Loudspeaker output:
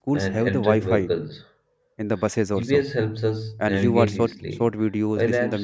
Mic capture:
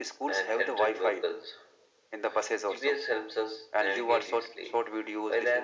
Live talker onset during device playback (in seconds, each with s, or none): none